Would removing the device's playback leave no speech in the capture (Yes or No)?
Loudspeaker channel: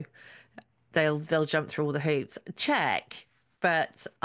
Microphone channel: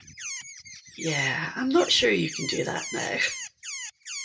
No